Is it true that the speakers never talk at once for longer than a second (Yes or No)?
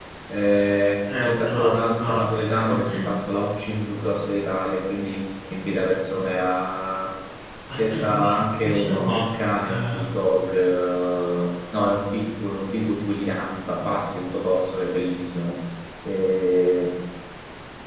No